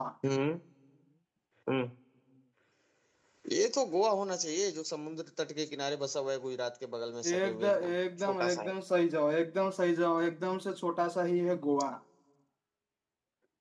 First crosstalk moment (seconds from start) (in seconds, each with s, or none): 7.2 s